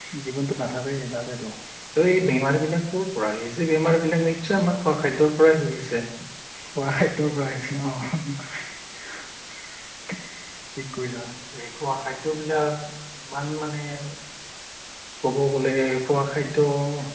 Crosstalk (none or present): none